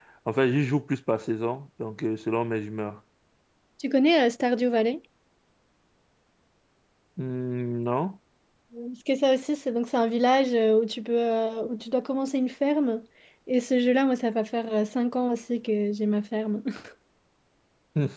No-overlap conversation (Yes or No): Yes